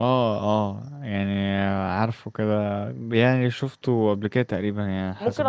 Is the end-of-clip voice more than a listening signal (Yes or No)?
Yes